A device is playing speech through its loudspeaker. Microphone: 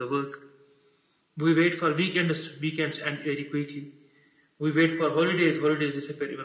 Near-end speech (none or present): none